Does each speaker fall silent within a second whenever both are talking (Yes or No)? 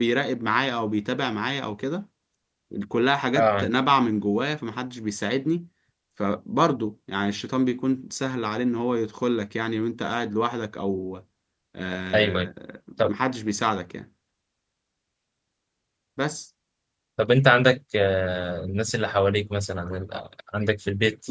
Yes